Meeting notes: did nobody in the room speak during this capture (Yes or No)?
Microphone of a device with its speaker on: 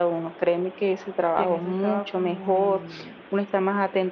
No